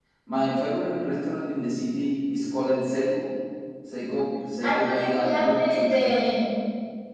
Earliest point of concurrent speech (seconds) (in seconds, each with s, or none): 4.6 s